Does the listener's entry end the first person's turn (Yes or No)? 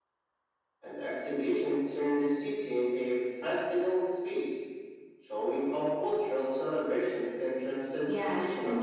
Yes